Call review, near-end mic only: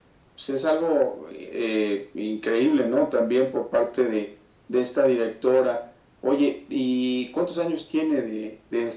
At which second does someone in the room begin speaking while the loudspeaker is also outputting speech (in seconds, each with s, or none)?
none